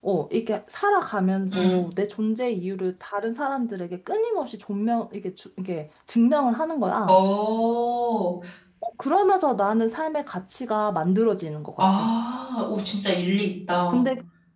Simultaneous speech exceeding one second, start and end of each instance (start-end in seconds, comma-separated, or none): none